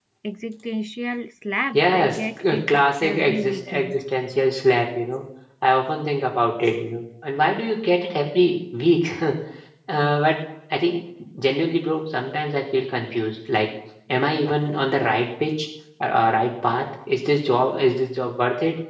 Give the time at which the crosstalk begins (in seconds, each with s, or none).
1.7 s